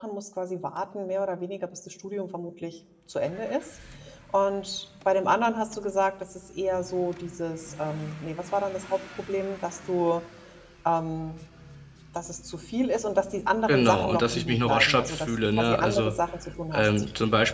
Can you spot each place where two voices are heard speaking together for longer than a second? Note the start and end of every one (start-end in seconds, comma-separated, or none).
13.7-16.1